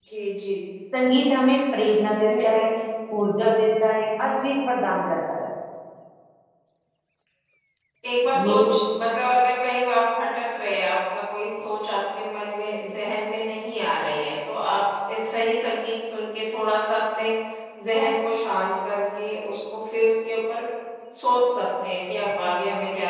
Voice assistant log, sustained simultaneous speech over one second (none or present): none